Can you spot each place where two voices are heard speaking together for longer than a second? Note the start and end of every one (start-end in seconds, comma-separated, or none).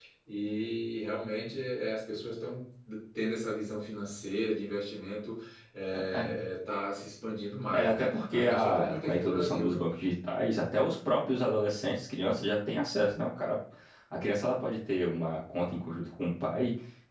7.7-9.8